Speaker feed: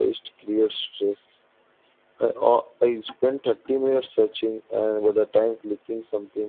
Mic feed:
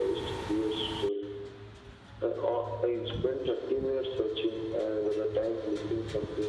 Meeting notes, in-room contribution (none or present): none